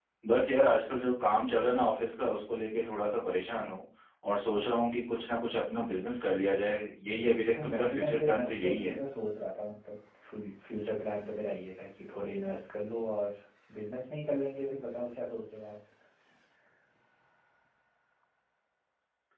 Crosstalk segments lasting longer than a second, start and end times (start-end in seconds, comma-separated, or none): 7.2-8.9